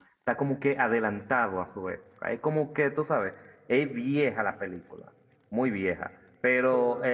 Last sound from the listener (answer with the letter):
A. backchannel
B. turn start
A